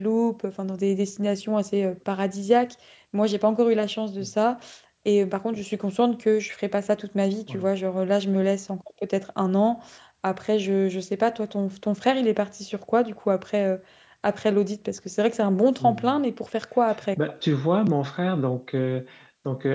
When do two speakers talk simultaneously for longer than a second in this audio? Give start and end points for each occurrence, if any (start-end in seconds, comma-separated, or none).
none